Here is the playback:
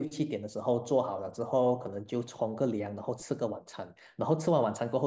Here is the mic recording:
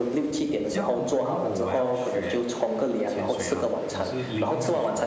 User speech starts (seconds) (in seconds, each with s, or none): 0.6 s